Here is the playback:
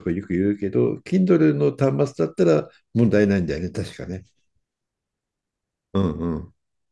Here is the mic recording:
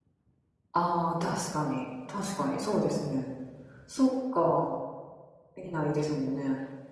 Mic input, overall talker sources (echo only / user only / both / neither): user only